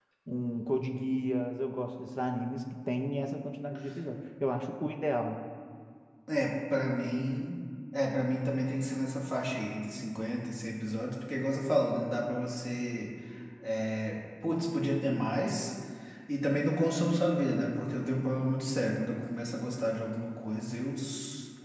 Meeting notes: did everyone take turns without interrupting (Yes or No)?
Yes